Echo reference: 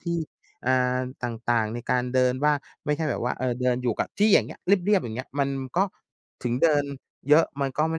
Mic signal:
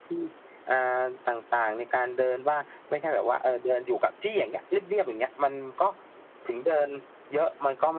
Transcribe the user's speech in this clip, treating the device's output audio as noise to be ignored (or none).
none